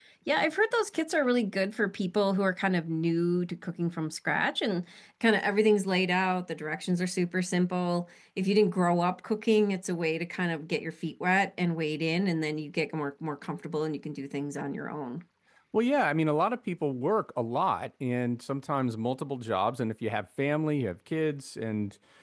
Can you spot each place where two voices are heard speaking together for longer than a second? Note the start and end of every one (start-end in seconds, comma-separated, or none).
none